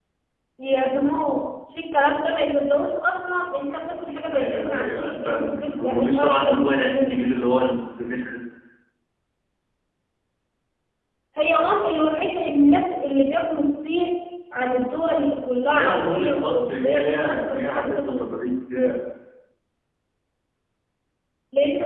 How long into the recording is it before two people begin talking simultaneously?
4 s

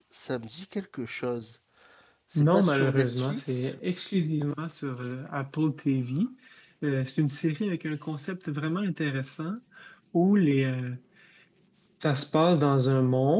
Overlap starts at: 2 s

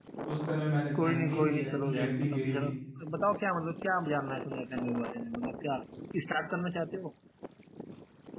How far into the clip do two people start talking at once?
1 s

